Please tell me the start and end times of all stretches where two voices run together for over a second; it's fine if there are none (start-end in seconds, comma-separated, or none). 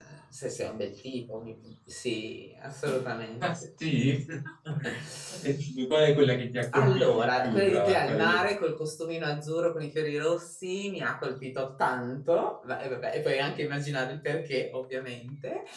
6.7-8.4